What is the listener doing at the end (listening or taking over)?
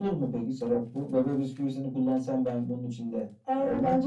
taking over